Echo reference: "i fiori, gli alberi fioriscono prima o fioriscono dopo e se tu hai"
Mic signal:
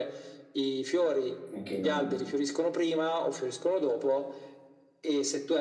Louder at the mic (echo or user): echo